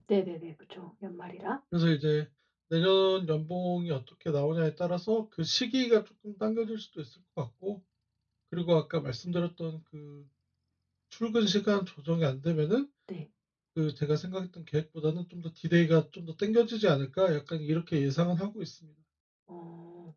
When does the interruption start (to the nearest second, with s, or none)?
none